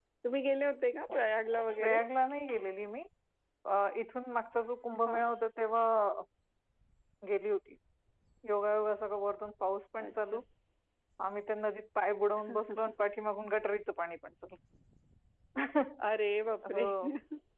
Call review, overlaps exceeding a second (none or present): none